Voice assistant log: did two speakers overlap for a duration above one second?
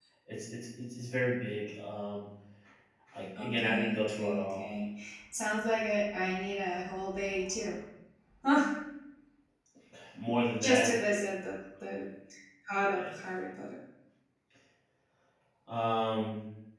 Yes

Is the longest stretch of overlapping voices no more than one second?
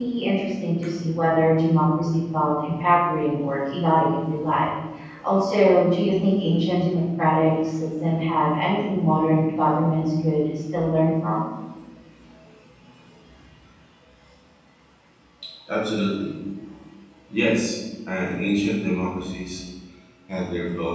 Yes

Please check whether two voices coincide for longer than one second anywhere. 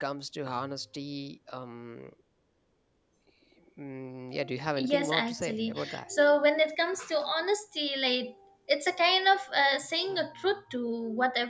Yes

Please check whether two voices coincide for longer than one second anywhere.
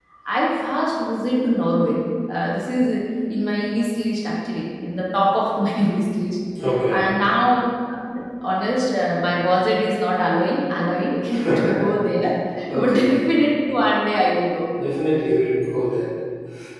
No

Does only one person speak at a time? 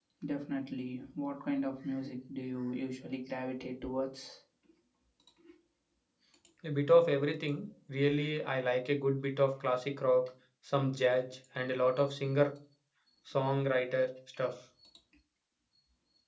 Yes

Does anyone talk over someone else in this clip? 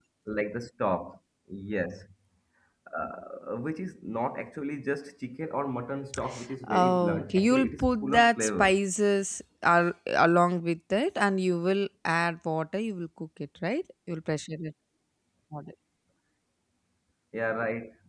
Yes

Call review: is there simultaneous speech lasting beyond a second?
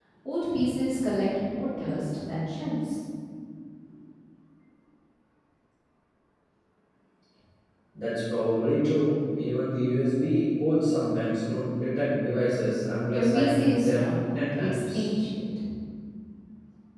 Yes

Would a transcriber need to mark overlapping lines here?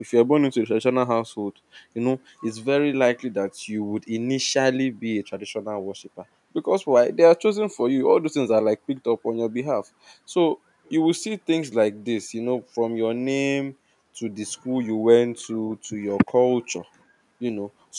No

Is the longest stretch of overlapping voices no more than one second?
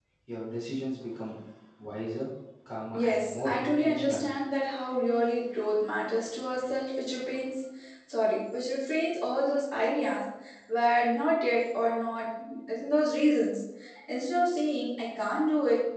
No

